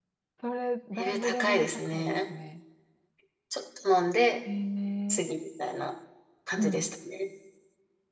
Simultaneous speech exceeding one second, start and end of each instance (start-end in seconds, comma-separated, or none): 1.0-2.2